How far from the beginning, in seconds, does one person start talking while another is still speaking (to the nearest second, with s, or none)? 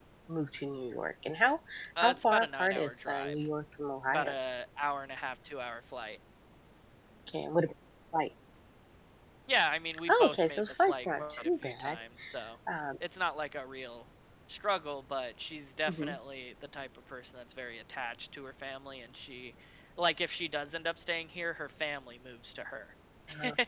2 s